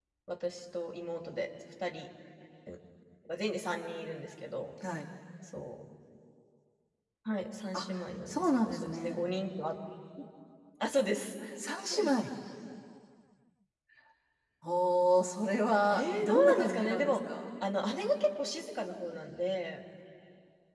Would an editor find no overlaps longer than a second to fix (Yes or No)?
No